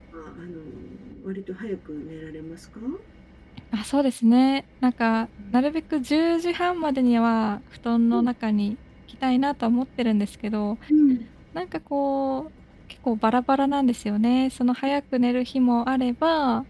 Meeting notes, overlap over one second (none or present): none